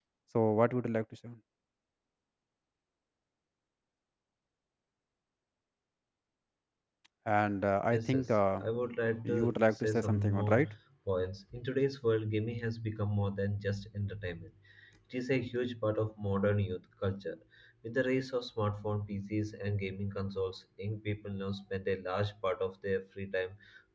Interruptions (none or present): present